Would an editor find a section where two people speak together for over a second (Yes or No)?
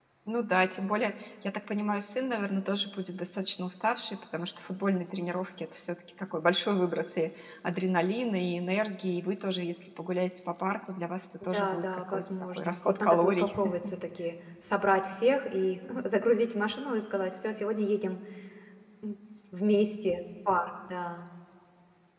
Yes